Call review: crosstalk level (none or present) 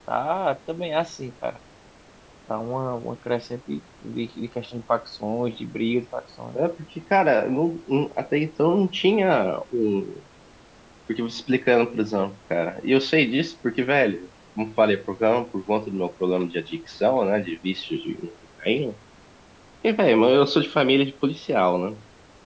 none